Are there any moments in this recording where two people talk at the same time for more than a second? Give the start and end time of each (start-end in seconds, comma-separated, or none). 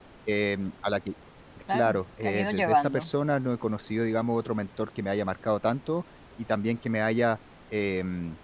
1.7-3.1